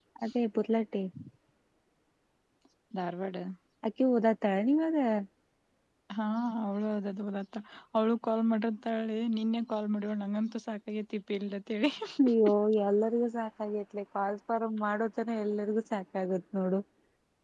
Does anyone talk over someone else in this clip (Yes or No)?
No